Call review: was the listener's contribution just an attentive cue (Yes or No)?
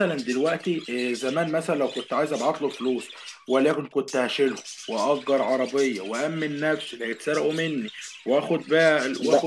No